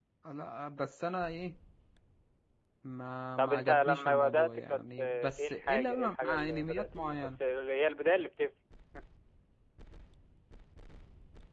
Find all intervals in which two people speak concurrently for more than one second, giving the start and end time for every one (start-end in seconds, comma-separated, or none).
3.4-7.4